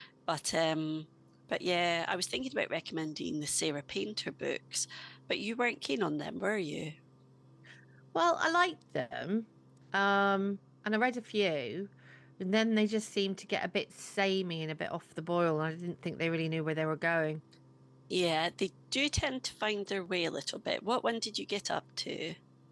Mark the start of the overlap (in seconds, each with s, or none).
none